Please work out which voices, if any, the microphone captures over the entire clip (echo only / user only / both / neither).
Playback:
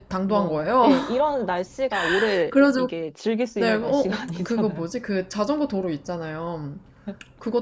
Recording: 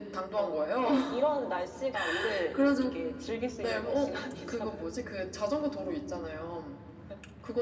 echo only